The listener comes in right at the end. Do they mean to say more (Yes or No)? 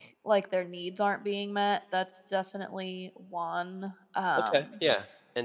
Yes